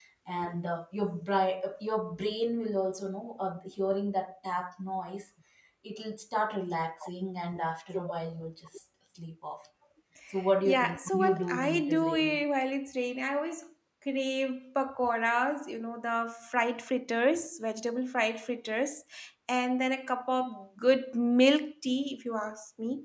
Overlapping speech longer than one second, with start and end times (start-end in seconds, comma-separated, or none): 10.6-12.4